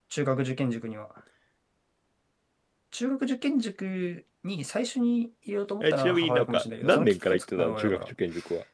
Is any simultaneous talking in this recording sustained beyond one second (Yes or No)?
Yes